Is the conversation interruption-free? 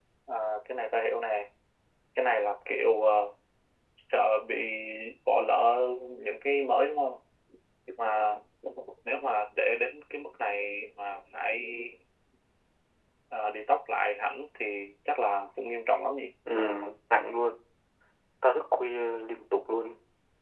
Yes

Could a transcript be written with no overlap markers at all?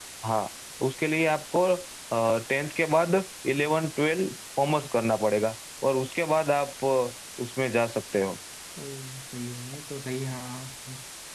Yes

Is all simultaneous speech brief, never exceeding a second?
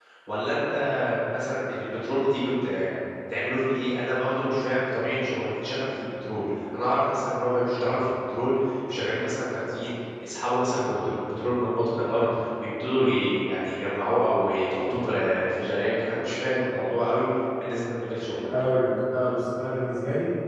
Yes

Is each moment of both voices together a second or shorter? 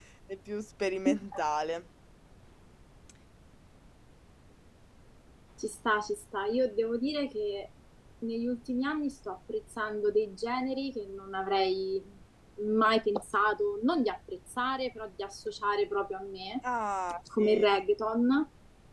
Yes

